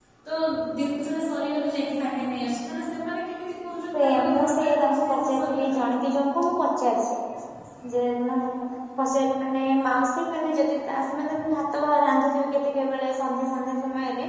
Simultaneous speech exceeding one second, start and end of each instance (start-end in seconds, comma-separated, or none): 4.0-5.8